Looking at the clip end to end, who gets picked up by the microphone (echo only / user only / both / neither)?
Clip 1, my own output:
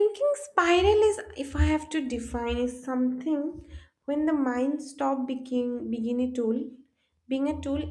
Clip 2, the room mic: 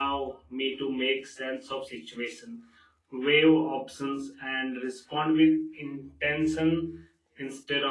user only